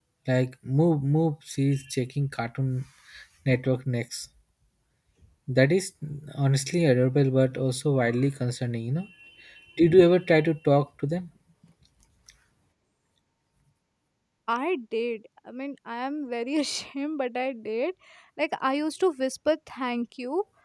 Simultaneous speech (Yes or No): No